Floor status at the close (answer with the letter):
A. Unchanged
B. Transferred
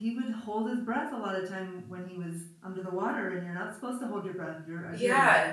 B